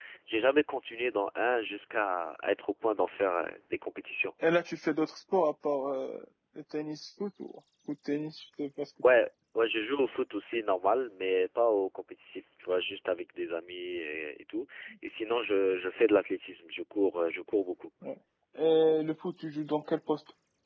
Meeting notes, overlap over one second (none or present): none